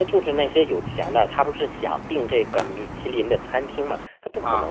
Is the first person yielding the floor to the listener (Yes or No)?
No